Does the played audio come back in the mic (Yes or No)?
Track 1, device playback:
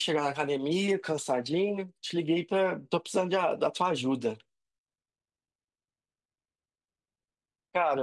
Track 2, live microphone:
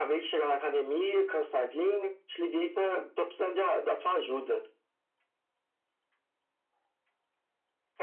Yes